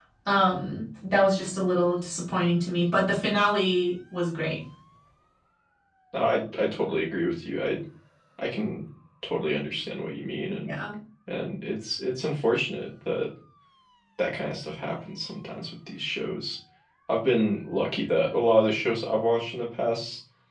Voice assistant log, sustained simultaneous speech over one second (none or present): none